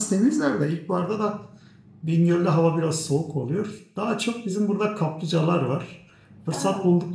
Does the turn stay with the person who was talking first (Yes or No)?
Yes